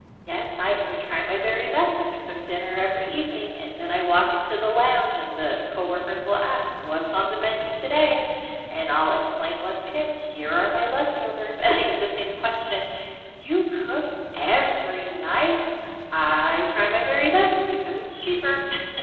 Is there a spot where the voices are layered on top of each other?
No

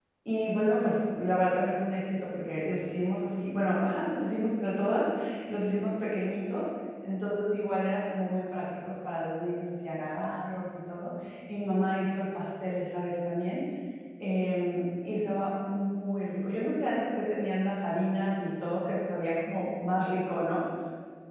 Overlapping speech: No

